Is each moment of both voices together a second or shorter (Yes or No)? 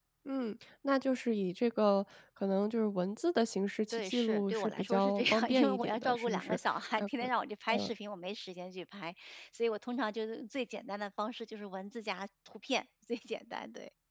No